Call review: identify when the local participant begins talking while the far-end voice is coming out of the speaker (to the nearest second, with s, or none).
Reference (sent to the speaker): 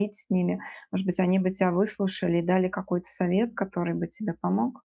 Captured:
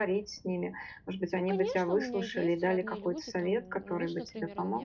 1 s